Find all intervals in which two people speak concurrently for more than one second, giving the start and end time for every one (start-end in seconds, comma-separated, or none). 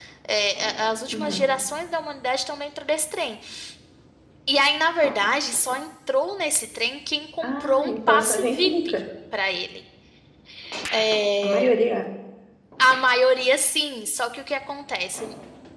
7.4-8.9